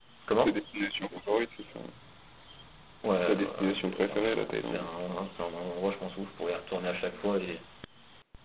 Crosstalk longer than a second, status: present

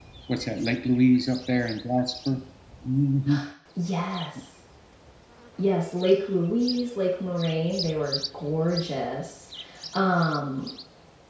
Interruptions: none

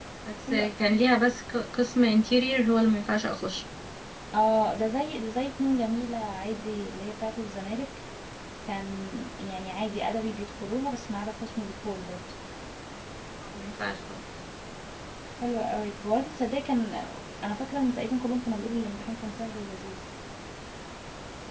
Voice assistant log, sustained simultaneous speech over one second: none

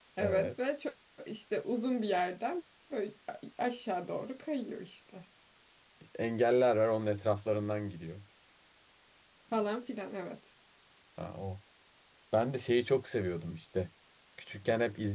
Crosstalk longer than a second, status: none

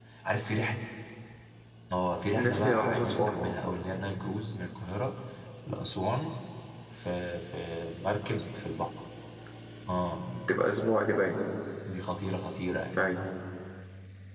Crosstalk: present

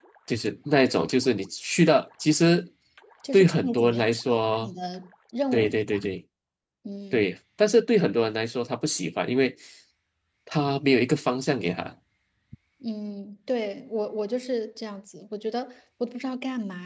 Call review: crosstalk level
present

